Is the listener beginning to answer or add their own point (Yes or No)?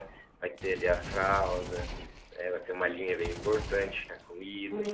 Yes